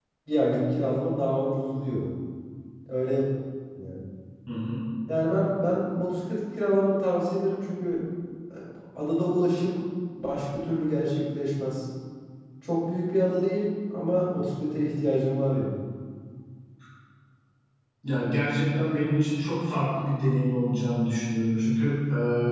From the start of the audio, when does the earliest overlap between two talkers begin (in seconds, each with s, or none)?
none